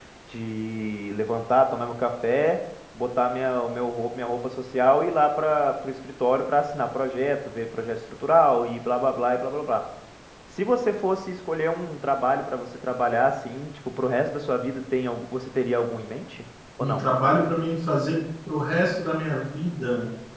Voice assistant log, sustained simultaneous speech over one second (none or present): none